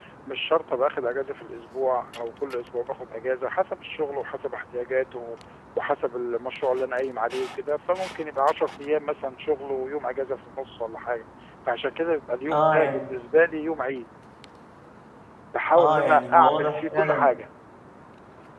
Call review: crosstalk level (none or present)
present